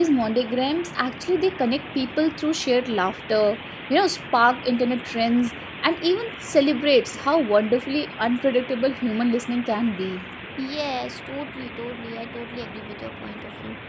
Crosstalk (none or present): none